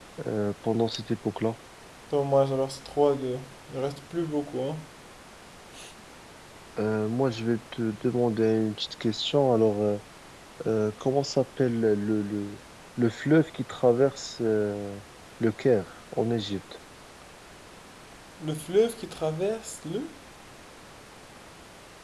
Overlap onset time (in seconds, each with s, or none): none